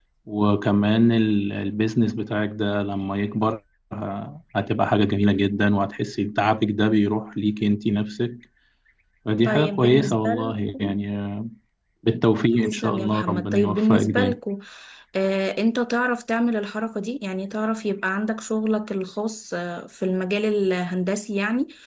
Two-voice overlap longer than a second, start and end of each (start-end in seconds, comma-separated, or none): 9.4-11.0, 12.6-14.4